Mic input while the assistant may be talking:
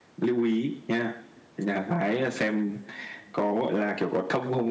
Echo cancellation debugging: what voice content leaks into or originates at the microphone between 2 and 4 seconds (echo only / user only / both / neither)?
echo only